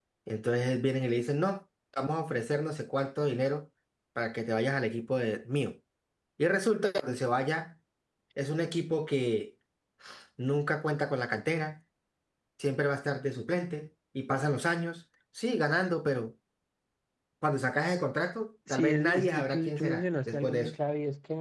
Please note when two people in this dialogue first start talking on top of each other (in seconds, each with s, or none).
18.7 s